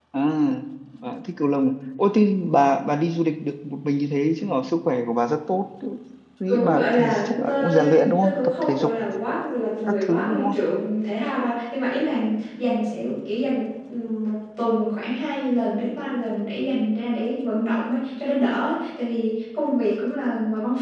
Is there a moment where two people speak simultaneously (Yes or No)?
Yes